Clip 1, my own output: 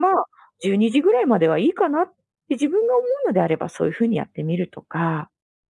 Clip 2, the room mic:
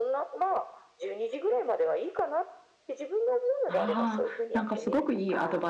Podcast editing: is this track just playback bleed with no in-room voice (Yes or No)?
No